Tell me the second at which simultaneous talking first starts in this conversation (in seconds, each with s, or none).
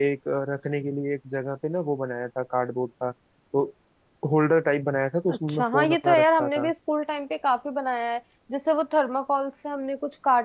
5.3 s